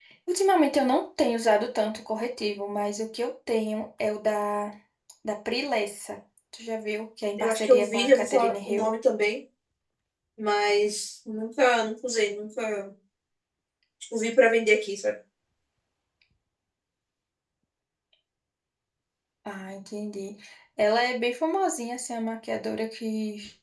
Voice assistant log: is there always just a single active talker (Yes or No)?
No